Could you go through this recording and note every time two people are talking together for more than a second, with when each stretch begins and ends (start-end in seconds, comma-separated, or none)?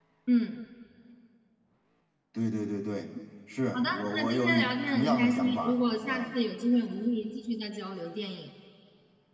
3.7-6.3